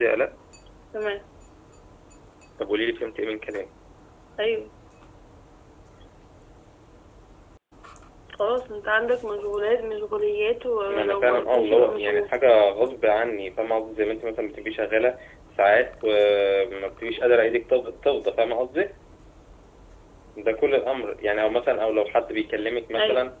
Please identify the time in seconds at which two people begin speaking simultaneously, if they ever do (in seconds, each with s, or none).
10.9 s